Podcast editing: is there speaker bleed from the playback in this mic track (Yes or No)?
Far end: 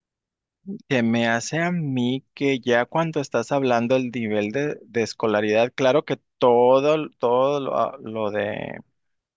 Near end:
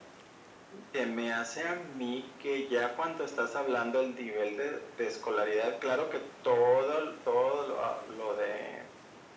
Yes